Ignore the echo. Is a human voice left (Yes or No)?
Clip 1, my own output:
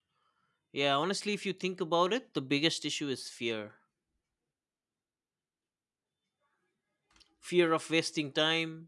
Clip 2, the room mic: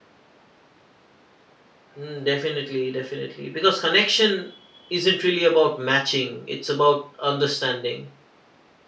Yes